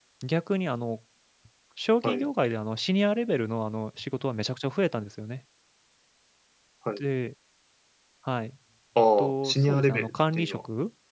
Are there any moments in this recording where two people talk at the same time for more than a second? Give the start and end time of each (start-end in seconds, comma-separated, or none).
9.2-10.6